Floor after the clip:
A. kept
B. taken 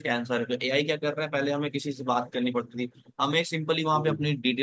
A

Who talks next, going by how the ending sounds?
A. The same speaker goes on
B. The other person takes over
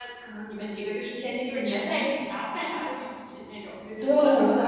B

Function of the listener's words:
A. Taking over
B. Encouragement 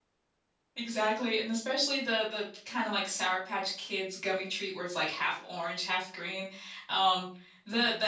B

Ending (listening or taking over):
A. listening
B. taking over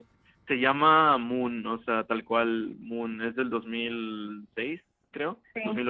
A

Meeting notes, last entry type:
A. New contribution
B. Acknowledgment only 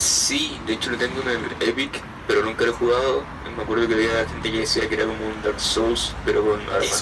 A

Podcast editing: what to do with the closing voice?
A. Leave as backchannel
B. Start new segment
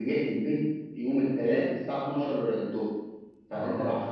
A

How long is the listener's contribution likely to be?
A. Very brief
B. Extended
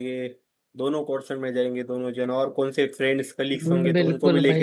B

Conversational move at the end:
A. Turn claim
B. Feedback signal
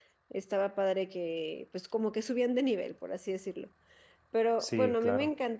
B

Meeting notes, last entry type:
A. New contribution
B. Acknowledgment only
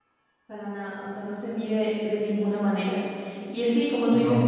B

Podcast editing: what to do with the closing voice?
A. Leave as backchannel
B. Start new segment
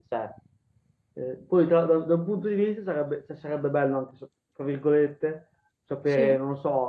A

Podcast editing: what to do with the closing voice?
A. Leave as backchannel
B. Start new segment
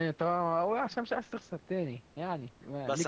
B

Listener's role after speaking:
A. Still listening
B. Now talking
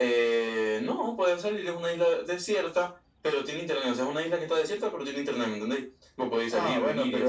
B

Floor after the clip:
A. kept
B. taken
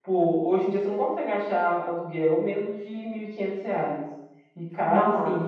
A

